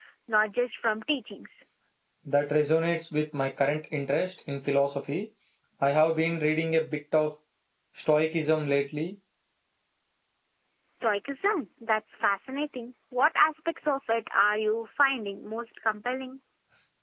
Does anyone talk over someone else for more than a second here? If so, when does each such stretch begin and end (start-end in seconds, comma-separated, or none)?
none